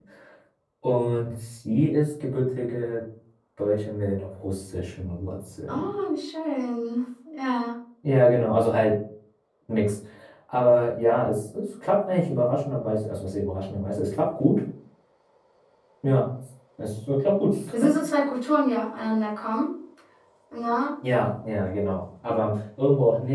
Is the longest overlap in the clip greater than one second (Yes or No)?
No